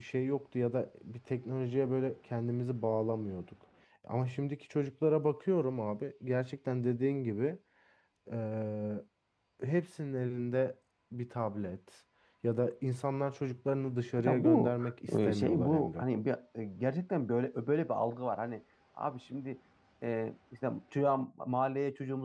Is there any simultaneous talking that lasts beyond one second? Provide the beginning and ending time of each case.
14.3-16.0

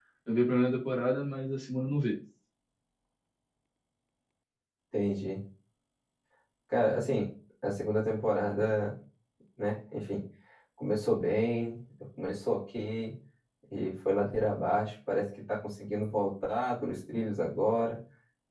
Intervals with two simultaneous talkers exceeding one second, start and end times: none

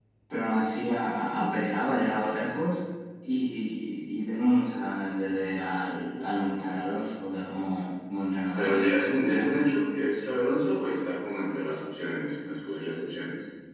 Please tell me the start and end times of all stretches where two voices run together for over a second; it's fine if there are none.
none

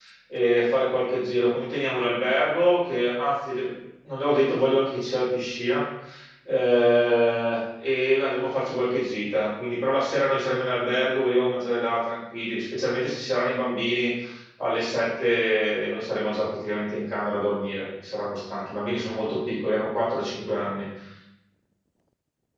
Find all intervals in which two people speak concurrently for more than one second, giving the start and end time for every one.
none

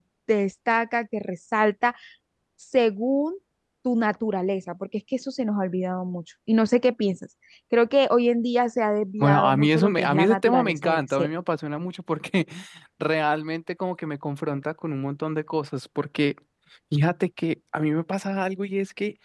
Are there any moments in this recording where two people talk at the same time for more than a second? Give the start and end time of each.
9.2-11.3

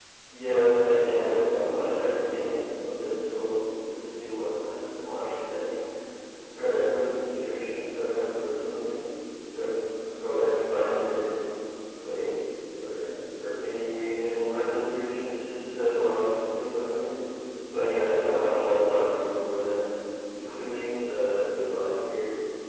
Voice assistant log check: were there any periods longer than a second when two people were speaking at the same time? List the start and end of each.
0.8-2.8

